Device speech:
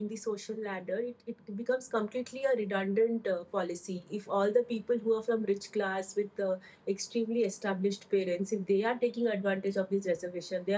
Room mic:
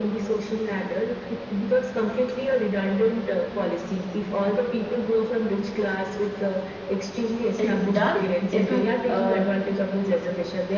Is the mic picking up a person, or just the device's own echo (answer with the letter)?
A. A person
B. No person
A